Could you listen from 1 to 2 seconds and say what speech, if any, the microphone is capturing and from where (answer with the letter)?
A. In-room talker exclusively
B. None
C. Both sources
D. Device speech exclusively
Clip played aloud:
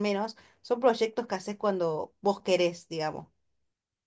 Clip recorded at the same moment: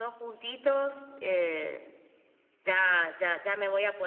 A